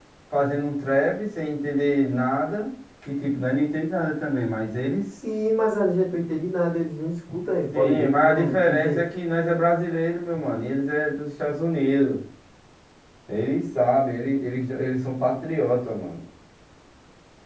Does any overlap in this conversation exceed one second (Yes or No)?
Yes